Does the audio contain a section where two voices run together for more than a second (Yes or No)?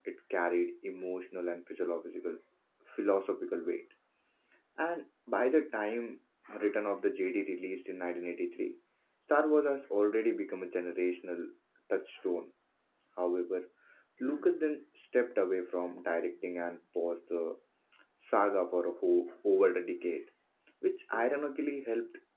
No